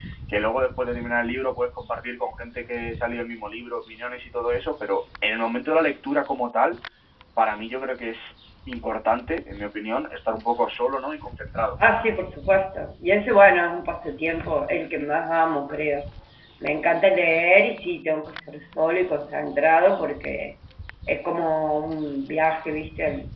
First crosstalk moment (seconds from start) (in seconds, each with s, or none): none